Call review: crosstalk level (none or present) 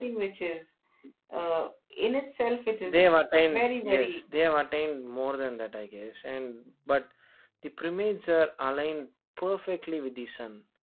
present